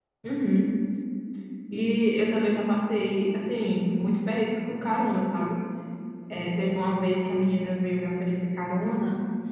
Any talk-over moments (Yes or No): No